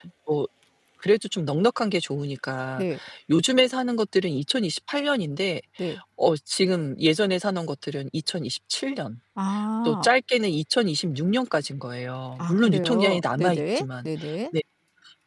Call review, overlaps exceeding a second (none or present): present